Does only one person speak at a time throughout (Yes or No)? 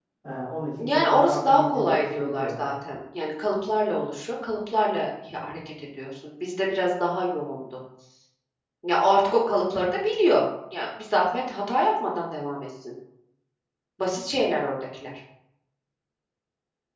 No